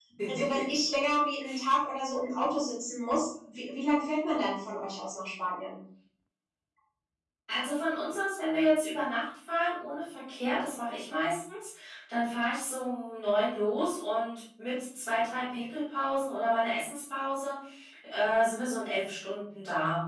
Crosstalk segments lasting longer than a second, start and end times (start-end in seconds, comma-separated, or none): none